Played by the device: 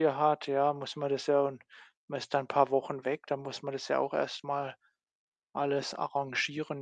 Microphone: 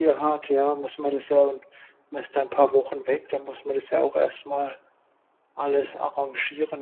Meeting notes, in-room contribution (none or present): none